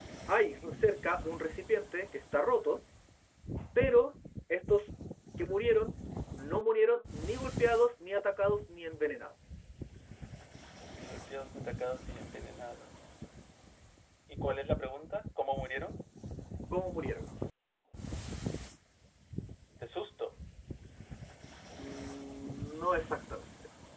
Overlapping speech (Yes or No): No